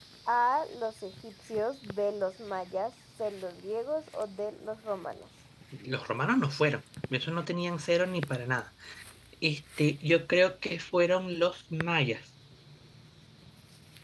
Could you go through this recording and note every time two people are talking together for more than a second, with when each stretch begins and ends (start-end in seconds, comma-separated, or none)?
none